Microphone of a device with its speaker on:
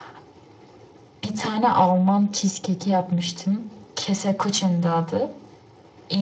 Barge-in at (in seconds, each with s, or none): none